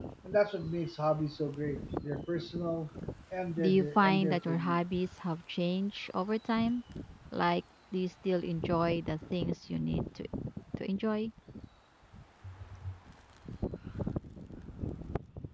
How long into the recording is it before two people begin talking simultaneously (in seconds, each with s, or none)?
3.6 s